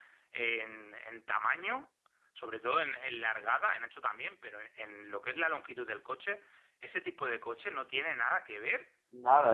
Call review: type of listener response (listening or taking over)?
taking over